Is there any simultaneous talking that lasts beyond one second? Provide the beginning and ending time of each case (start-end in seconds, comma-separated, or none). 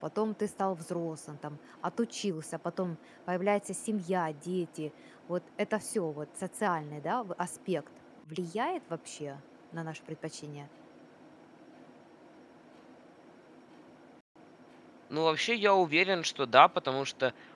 none